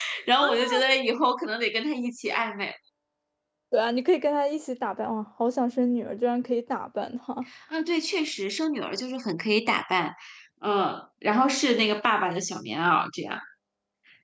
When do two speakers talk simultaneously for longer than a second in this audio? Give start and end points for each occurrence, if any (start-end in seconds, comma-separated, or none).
none